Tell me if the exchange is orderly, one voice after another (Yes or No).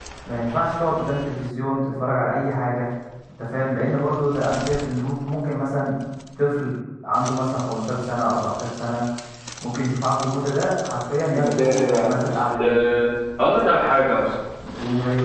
No